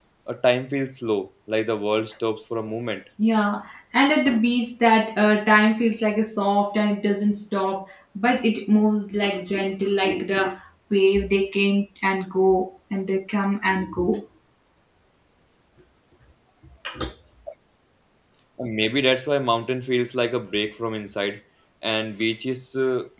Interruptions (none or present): none